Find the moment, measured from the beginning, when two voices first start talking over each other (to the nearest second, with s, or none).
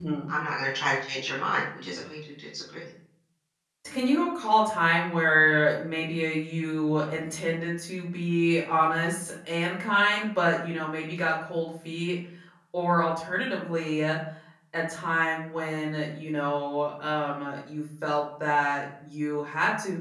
none